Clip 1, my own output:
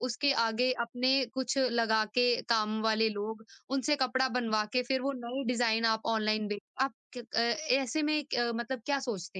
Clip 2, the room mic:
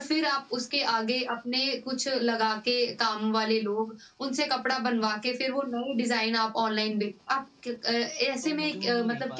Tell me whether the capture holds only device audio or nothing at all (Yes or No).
No